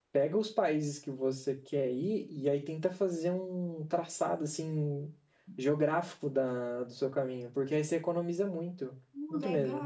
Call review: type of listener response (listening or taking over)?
taking over